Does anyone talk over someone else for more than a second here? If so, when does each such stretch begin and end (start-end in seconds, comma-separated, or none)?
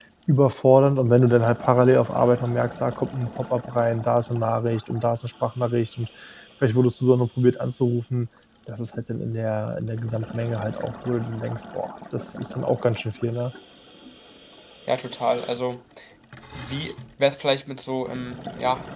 none